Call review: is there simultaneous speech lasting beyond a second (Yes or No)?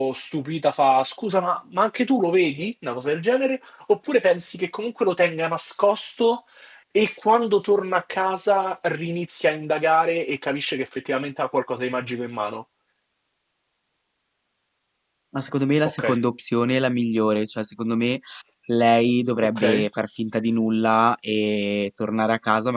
No